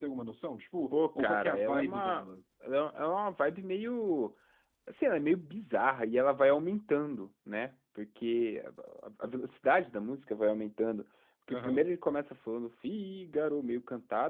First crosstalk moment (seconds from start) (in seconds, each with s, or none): 0.9 s